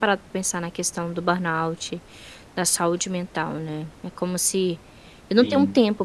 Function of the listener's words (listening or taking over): listening